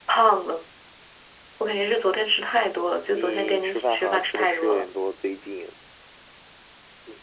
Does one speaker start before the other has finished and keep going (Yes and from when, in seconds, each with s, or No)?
Yes, from 3.1 s